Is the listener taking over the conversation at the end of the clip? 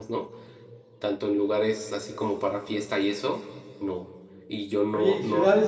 Yes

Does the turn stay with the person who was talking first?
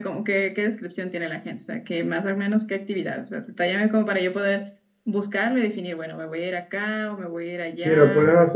No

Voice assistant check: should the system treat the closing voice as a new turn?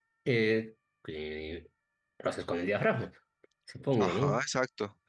Yes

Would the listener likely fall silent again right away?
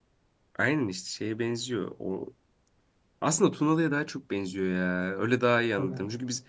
Yes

